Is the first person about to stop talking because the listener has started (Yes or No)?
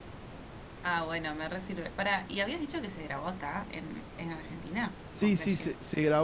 Yes